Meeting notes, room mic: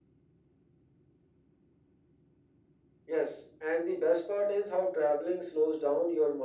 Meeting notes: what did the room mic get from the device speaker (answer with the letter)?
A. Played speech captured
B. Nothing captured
A